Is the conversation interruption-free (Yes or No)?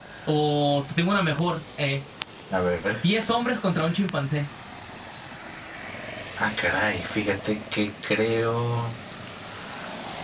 Yes